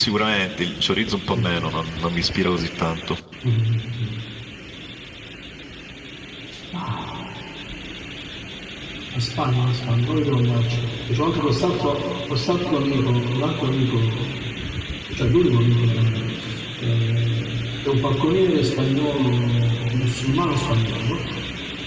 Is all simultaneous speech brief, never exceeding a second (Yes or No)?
Yes